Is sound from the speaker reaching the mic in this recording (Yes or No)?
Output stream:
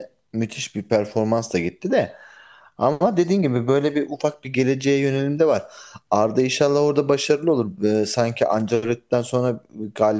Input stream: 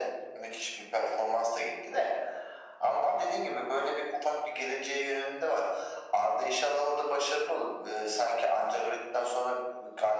Yes